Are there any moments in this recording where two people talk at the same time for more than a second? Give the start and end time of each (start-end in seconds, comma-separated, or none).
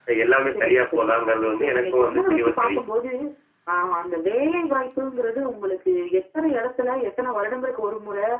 1.5-2.8